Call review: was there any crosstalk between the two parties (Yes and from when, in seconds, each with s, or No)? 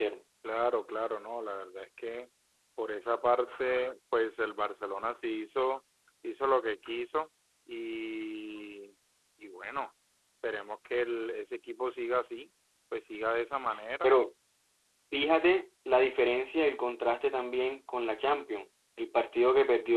No